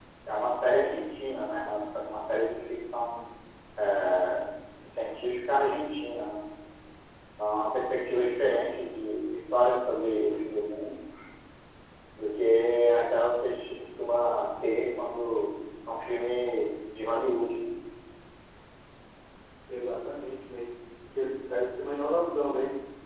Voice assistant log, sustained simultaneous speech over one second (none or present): none